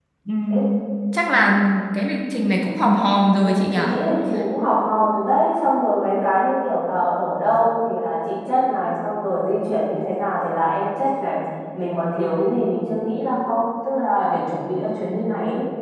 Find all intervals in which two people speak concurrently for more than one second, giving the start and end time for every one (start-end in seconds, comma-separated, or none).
none